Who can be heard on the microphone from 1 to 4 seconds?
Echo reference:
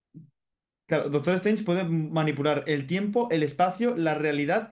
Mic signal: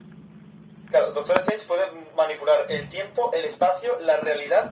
echo only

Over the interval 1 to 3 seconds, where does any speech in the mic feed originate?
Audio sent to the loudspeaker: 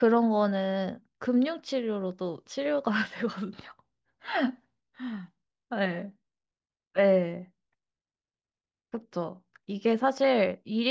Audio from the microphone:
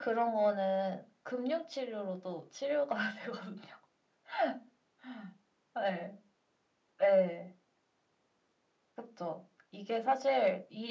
echo only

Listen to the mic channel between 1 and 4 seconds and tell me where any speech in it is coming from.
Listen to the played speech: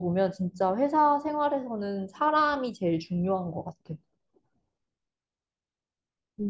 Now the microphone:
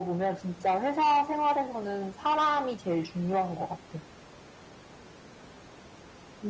echo only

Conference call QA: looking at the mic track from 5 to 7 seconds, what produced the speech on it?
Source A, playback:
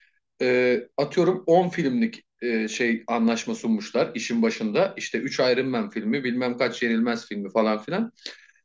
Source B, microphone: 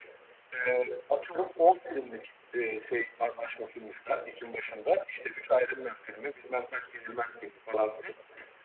echo only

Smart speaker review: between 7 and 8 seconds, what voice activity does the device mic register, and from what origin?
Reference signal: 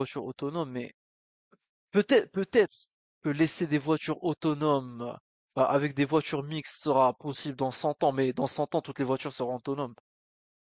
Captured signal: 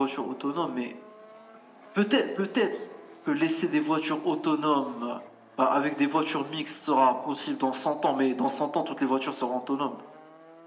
echo only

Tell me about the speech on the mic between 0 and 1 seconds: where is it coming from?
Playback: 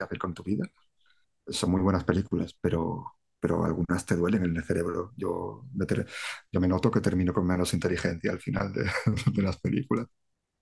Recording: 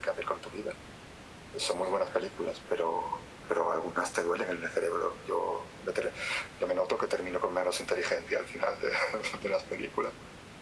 echo only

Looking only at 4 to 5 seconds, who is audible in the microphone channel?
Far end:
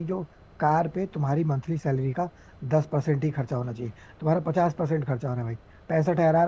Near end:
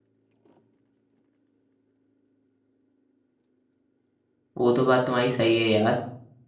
user only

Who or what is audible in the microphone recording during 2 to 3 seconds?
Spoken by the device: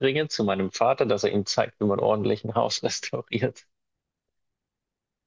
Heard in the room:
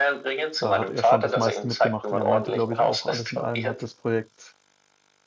both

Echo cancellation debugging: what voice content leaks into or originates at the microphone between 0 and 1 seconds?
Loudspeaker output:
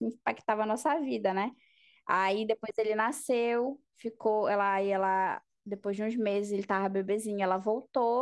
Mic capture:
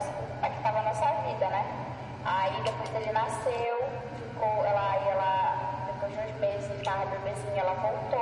echo only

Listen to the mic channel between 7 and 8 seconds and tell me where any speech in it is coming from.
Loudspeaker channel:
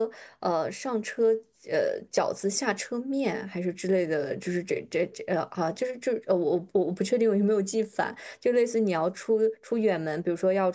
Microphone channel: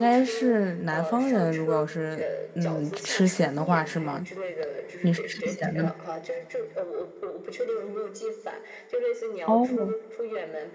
echo only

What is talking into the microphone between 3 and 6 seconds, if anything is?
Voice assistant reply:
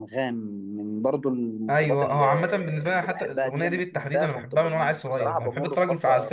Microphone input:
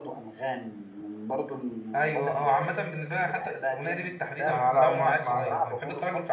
both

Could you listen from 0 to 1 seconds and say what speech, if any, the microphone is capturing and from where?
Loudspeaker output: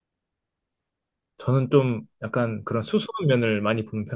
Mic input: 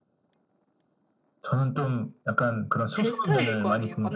neither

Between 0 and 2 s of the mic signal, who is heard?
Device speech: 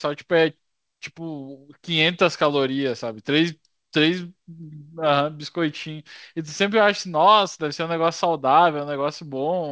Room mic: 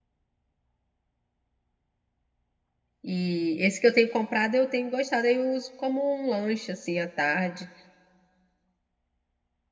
neither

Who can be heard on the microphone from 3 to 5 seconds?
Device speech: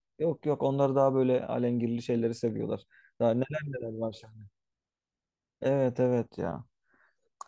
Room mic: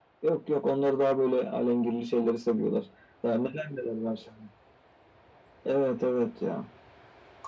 echo only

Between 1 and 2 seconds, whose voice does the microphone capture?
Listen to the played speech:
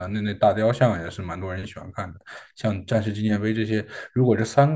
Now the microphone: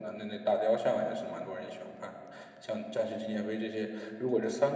echo only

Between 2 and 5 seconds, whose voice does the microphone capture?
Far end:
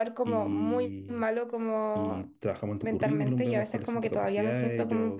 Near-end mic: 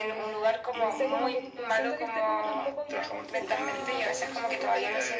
both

